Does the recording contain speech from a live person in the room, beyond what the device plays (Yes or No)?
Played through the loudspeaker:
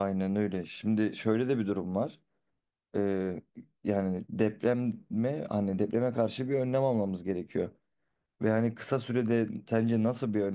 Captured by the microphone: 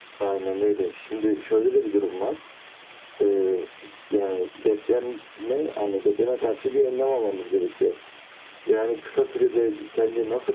No